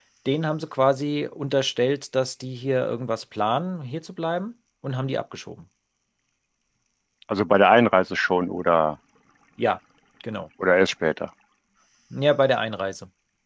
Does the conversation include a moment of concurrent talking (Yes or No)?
No